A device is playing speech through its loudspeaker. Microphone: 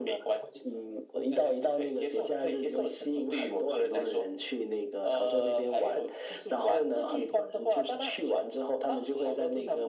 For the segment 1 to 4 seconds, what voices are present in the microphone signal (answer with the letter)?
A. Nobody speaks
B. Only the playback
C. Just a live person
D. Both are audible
B